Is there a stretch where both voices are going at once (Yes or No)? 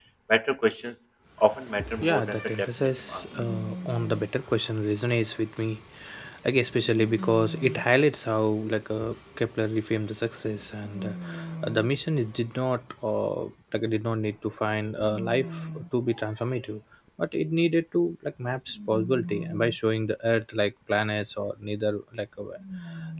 Yes